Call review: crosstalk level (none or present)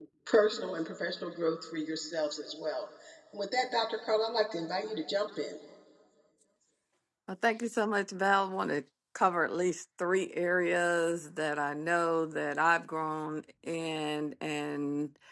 none